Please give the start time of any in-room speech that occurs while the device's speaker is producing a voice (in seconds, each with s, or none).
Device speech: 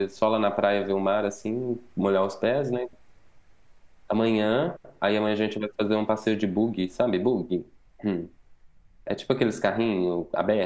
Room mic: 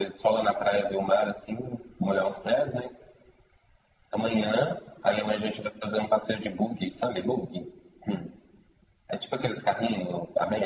none